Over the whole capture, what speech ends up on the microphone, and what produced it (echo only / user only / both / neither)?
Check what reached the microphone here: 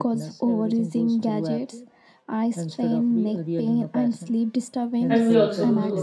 both